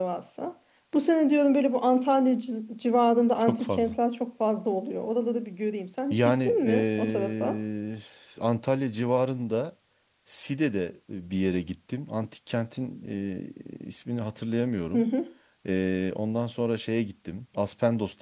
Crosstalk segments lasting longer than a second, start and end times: 6.1-7.6

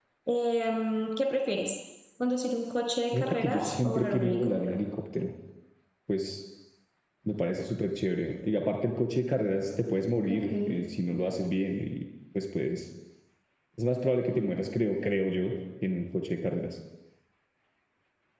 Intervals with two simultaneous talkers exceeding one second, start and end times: 3.1-4.7

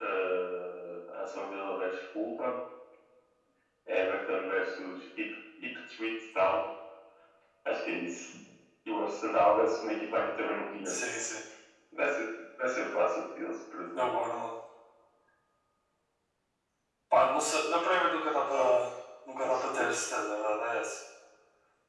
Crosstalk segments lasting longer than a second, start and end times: none

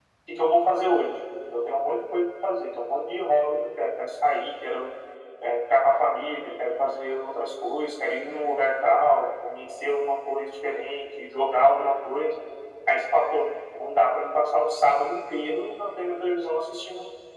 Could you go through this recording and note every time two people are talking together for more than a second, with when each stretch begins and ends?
none

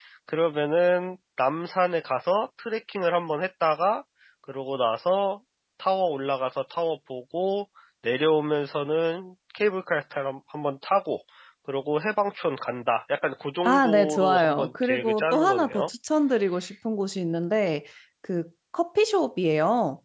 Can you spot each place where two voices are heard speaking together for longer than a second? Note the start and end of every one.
13.6-15.9

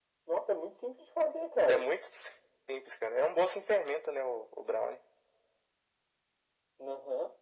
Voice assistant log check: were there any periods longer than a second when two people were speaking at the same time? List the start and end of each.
none

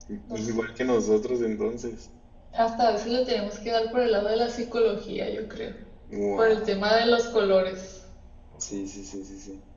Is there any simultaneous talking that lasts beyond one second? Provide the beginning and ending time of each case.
none

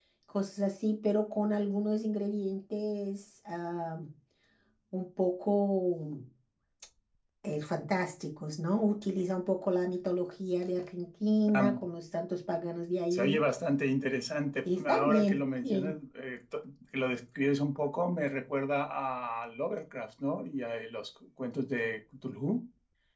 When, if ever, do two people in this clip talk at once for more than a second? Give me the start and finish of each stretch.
14.7-15.9

